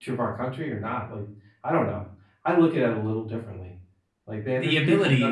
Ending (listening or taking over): listening